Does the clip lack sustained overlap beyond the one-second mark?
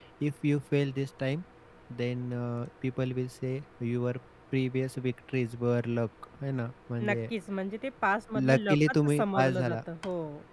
No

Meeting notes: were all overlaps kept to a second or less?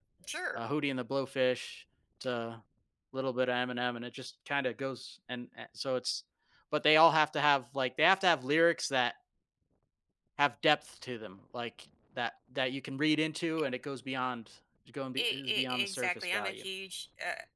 No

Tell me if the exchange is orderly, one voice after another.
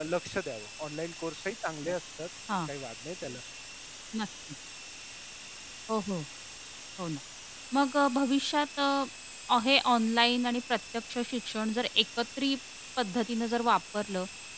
Yes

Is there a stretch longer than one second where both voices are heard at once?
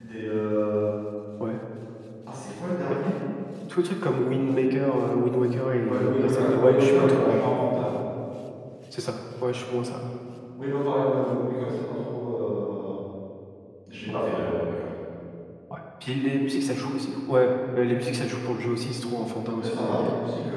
Yes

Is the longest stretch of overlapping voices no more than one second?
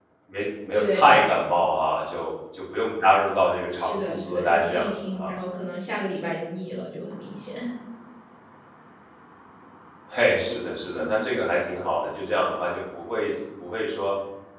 No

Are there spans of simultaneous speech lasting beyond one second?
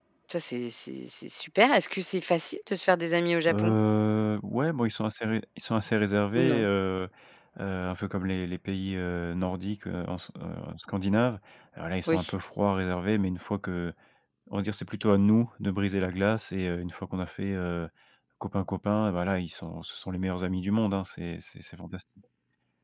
No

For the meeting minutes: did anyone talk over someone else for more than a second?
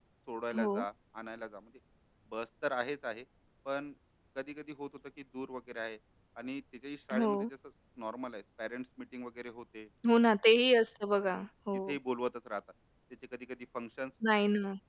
No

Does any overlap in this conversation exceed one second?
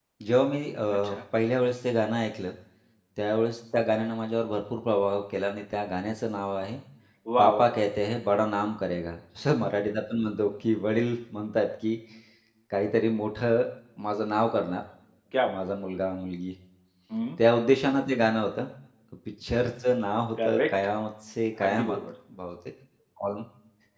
No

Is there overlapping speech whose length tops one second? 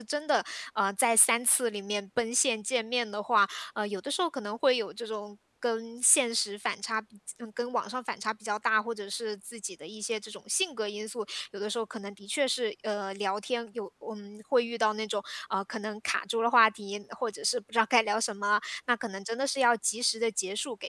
No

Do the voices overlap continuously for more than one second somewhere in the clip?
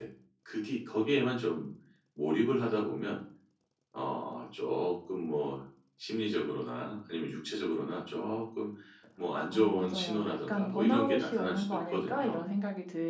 Yes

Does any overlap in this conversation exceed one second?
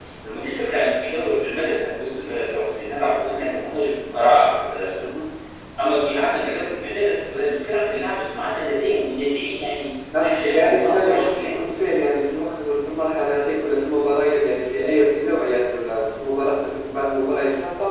Yes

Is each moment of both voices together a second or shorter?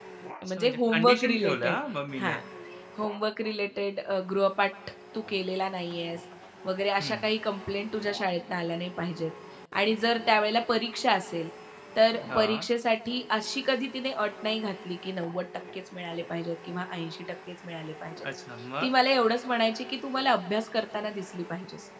No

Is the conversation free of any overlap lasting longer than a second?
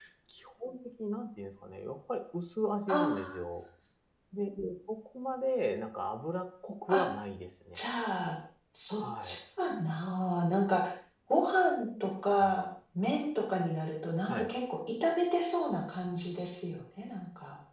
Yes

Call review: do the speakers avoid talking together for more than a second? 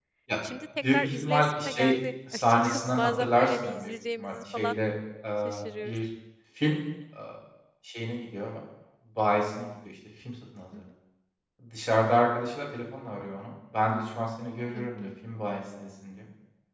No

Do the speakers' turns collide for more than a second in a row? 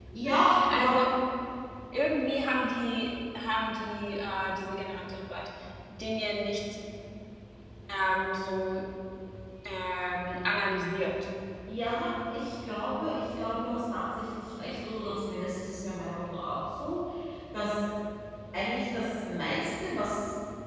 No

